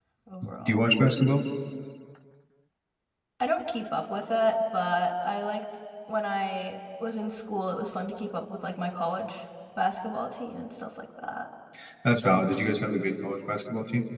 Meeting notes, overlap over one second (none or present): none